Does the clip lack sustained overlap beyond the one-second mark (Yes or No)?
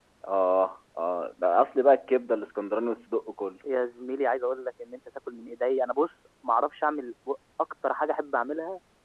Yes